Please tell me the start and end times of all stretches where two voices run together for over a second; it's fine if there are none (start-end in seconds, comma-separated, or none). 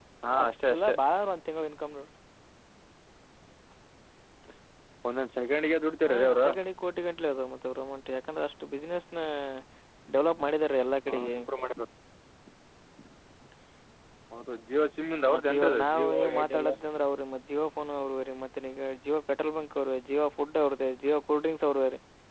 15.3-16.7